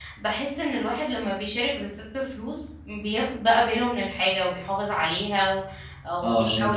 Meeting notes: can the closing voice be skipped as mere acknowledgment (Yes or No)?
No